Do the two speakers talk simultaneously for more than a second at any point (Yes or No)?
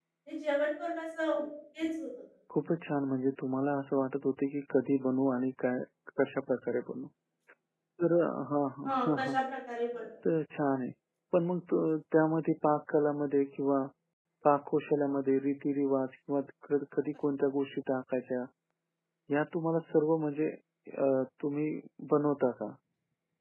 No